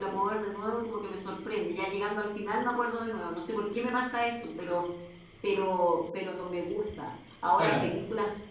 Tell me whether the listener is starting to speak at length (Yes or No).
No